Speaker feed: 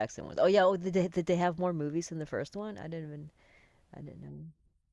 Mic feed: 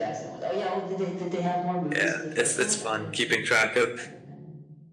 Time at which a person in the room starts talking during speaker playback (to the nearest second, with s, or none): 2 s